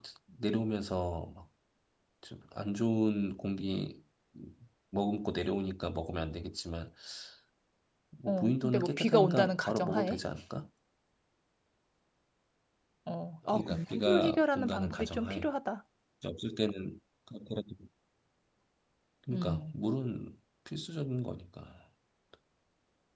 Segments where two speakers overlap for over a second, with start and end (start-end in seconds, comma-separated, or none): 8.3-10.2, 13.5-15.5